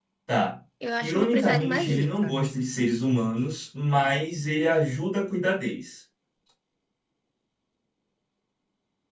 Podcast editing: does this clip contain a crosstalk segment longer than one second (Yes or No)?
Yes